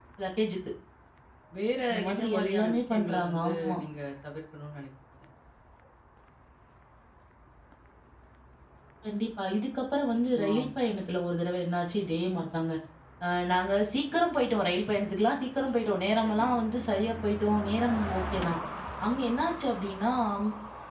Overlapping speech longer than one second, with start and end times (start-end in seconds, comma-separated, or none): 1.9-3.8